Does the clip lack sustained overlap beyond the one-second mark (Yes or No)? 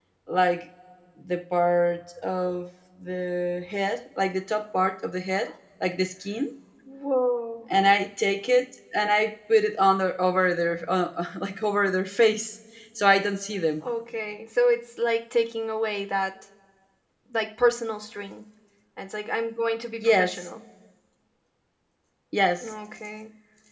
Yes